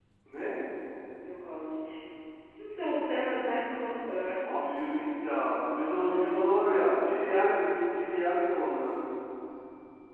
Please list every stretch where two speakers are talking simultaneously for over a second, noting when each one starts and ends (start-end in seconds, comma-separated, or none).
5.8-7.3